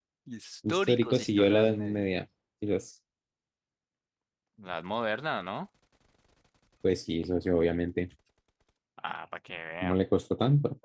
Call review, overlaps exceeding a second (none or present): present